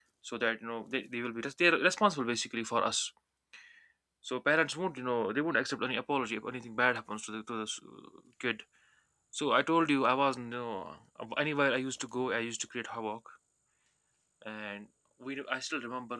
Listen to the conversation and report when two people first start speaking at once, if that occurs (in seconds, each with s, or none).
none